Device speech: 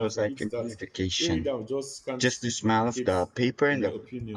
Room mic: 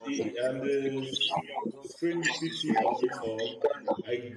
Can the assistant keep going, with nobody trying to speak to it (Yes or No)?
No